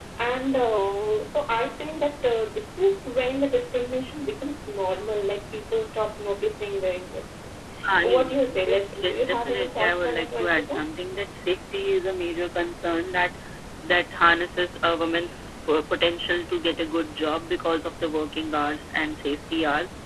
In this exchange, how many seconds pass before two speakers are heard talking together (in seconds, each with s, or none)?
8.0 s